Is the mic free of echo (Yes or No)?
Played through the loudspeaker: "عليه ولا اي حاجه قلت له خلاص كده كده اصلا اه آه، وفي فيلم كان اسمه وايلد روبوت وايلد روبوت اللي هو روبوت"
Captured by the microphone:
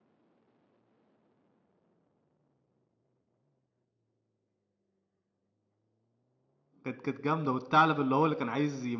Yes